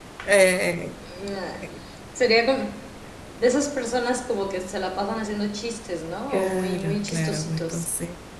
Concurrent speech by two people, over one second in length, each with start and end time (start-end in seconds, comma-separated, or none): 6.3-7.8